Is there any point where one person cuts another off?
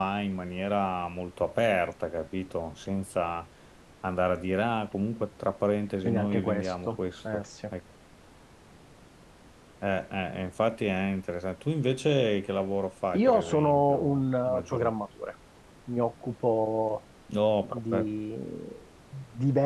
Yes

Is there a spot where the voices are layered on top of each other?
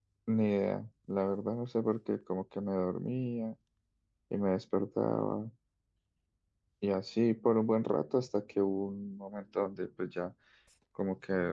No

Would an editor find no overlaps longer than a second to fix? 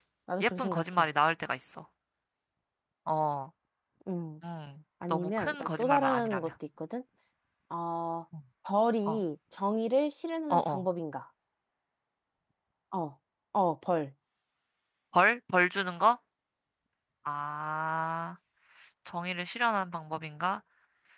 No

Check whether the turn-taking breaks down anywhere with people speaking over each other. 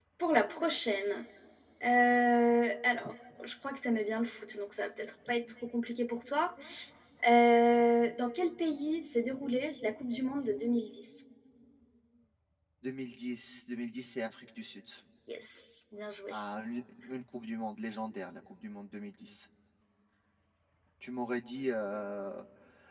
No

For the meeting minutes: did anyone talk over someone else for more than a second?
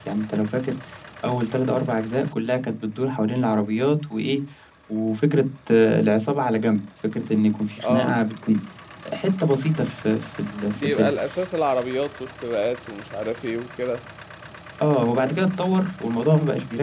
No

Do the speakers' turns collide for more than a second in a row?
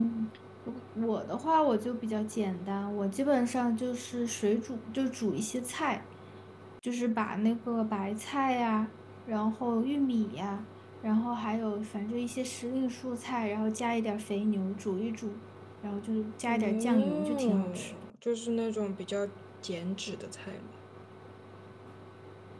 Yes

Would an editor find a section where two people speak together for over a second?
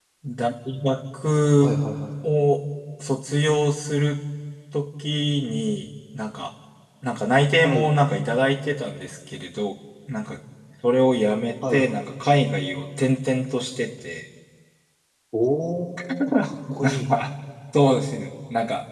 No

